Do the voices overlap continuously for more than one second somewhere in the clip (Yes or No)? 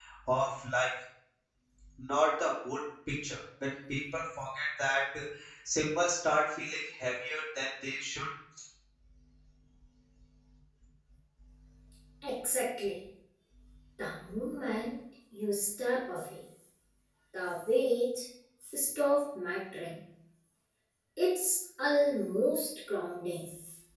No